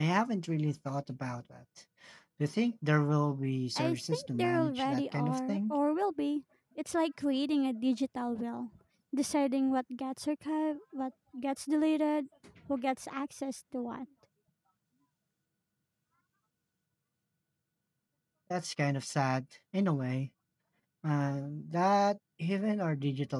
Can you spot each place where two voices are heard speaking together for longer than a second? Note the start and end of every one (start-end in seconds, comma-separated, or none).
3.8-5.7